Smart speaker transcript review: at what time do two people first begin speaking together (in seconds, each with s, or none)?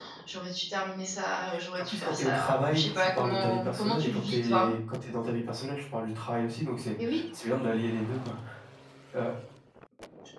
1.8 s